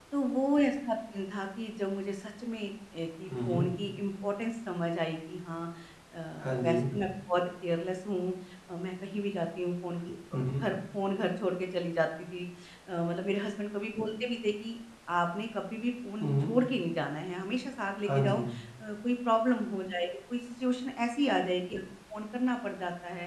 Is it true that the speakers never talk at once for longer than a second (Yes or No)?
Yes